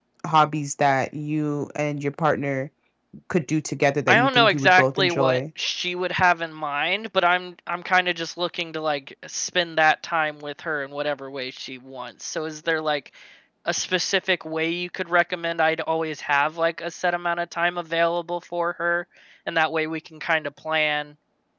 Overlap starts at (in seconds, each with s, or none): 4.1 s